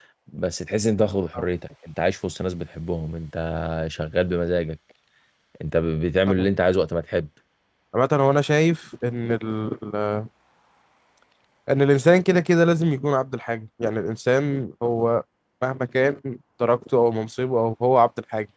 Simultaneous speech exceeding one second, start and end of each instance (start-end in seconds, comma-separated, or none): none